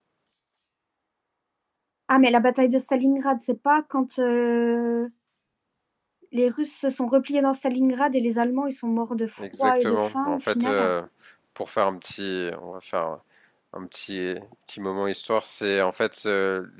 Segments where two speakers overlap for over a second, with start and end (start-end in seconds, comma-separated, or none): 9.6-10.9